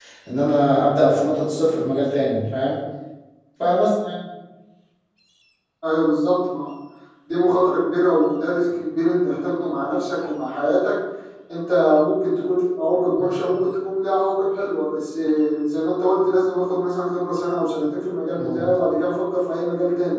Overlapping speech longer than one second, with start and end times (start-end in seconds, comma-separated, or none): none